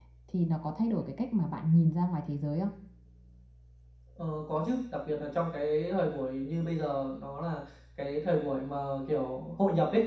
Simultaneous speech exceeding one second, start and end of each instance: none

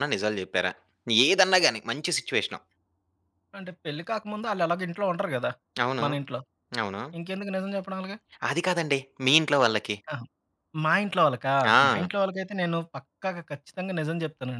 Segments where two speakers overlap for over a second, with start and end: none

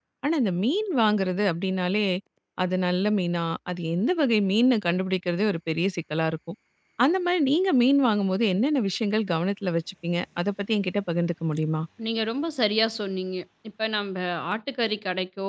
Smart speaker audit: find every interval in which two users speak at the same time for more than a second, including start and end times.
none

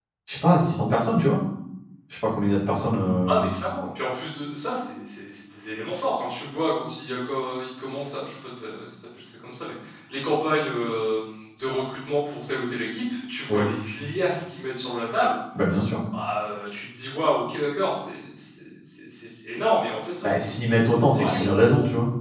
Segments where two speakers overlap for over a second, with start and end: 20.2-21.6

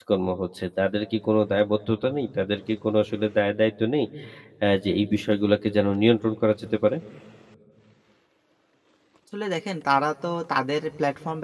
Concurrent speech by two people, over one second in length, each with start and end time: none

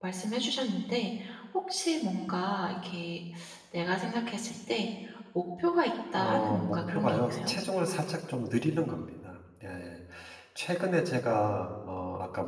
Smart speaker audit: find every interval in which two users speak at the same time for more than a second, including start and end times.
6.2-7.5

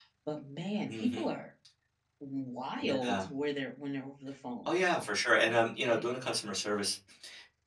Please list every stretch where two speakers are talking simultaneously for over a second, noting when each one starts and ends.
none

